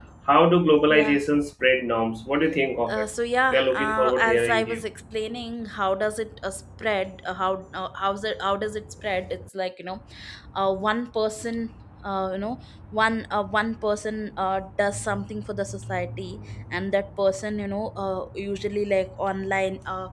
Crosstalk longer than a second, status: present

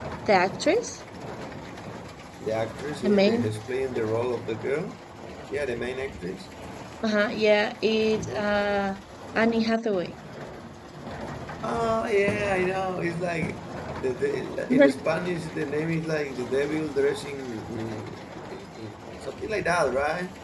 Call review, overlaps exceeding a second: none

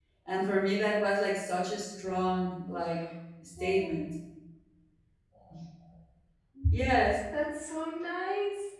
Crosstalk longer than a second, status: none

